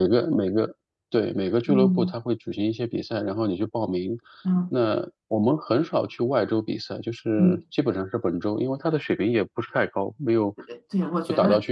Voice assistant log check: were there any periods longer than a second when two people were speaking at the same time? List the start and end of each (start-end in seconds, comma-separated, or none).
none